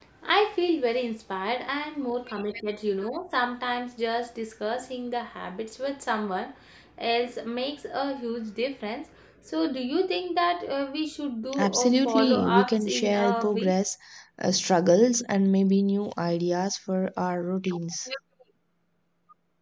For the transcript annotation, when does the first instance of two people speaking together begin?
11.5 s

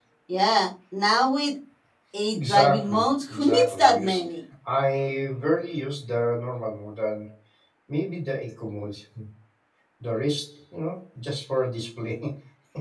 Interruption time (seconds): 2.3 s

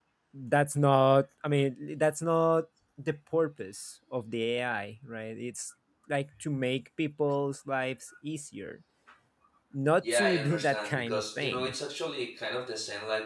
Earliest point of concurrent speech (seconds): 10.1 s

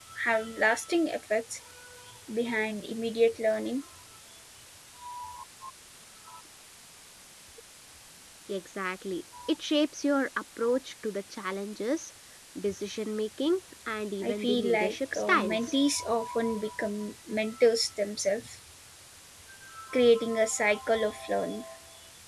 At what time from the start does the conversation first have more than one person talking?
14.2 s

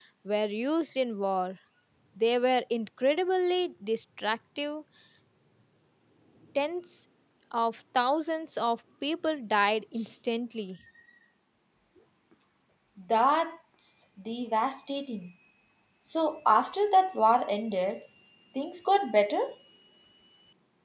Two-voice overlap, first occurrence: none

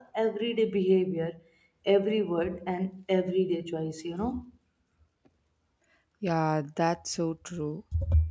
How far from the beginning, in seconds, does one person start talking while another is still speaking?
none

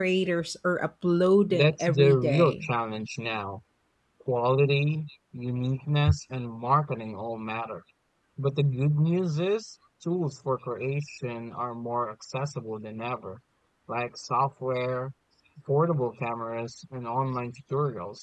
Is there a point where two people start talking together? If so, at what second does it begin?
1.5 s

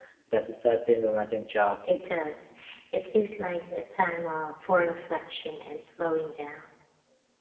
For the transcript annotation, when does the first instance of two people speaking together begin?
none

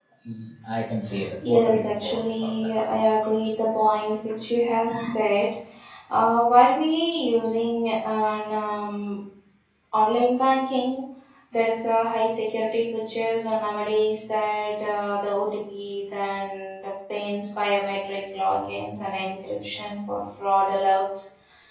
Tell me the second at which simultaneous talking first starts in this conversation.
1.4 s

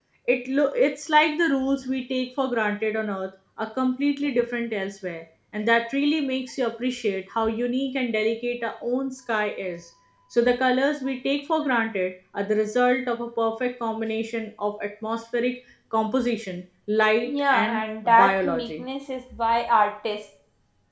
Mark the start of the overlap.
17.2 s

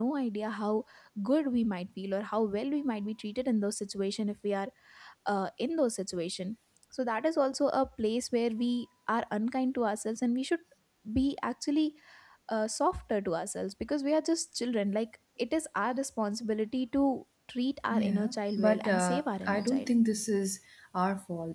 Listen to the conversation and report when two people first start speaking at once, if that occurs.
17.9 s

